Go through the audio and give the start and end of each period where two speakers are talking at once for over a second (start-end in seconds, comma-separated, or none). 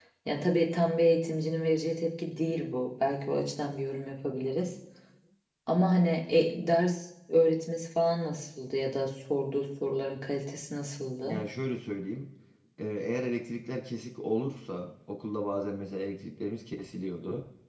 none